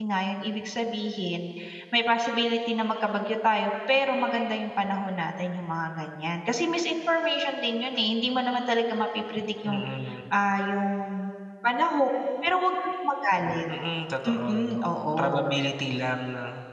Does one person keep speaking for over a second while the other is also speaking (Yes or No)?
No